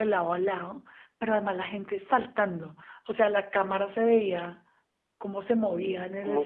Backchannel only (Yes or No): Yes